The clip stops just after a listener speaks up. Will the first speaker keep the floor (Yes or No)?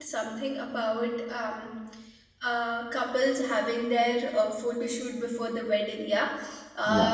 Yes